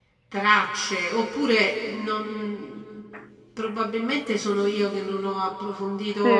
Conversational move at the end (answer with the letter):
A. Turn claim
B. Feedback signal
A